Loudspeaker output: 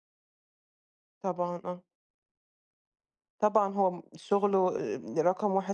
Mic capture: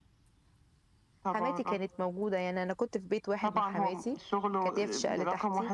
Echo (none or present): present